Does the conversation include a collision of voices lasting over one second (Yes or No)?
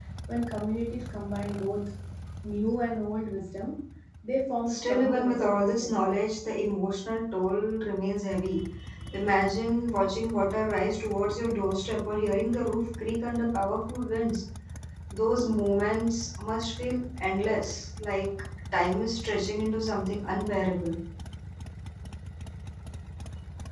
Yes